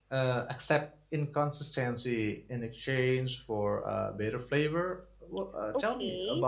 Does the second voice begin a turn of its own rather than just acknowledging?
Yes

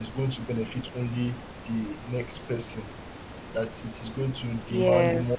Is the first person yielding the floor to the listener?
Yes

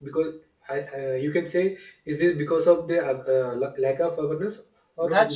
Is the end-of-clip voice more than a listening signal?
Yes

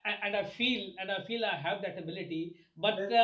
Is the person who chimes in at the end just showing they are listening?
Yes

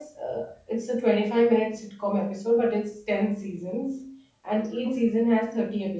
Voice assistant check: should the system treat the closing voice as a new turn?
No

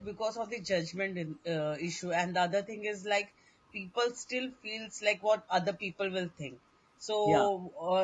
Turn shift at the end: No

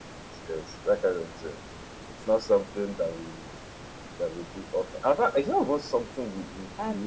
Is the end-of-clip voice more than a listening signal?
Yes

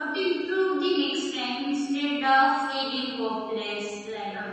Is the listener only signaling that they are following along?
Yes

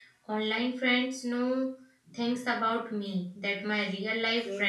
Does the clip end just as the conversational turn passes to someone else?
Yes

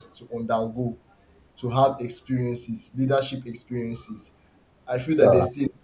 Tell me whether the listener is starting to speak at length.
No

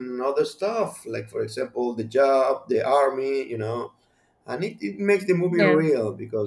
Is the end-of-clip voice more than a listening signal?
No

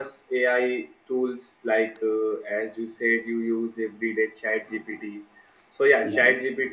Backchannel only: Yes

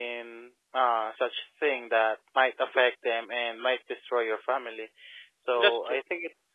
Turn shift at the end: No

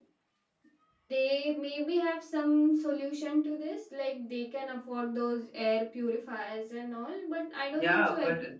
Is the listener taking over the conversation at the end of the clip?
Yes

